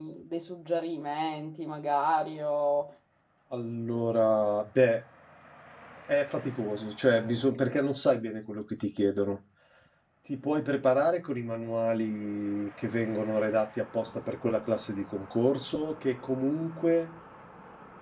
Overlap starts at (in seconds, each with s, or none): none